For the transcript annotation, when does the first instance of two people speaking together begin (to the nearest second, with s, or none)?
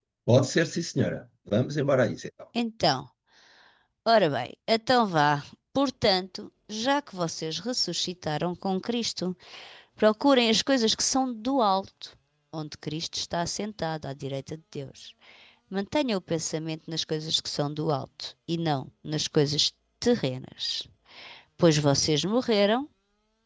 none